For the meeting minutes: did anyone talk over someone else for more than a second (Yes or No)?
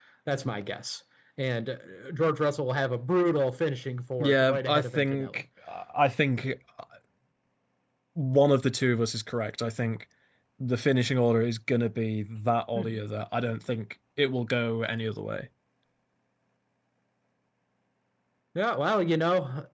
Yes